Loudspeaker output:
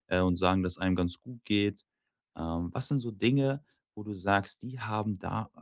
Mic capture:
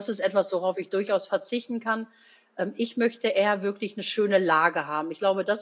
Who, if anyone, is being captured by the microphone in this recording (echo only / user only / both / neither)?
user only